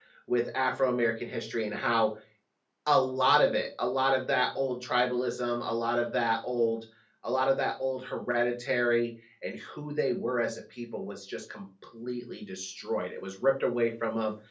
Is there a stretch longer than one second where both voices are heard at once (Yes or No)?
No